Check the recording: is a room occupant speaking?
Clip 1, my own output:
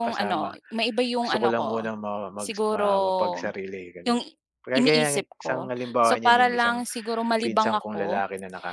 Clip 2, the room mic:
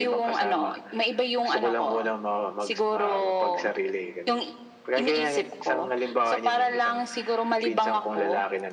No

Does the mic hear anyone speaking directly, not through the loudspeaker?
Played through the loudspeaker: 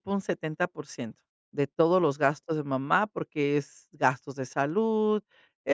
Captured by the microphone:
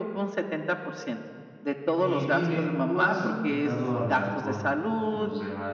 Yes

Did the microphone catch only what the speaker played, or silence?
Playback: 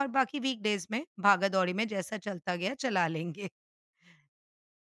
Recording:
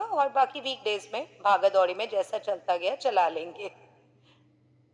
Yes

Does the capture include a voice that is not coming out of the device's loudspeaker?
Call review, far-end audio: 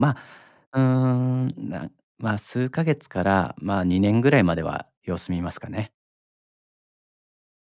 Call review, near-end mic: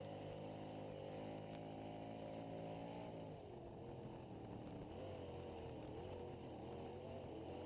No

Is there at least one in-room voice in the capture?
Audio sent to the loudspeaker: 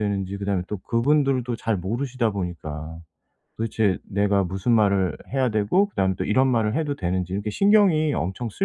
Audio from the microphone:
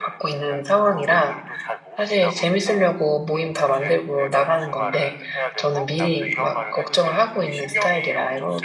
Yes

